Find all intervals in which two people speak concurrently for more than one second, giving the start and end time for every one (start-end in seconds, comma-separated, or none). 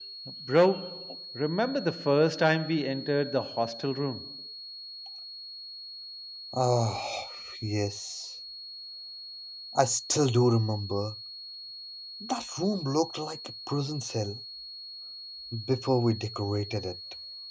none